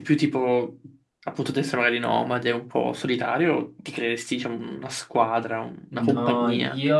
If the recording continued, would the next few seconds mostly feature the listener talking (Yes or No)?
Yes